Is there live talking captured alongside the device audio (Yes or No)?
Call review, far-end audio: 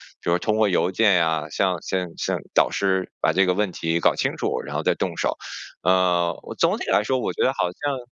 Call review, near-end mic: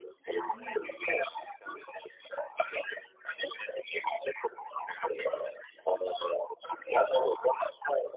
Yes